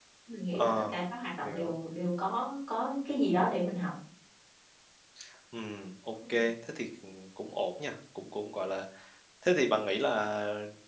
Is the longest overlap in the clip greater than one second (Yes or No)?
No